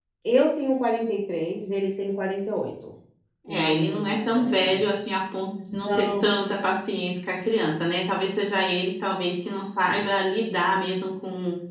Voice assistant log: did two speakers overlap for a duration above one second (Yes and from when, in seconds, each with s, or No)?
Yes, from 3.5 s